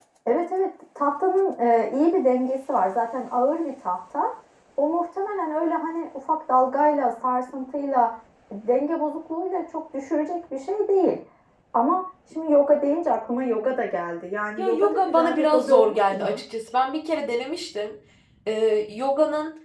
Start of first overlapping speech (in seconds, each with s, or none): 14.6 s